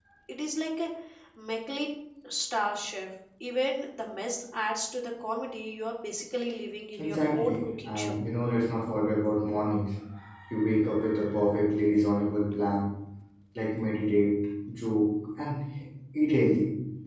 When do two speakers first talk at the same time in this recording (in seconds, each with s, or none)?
6.9 s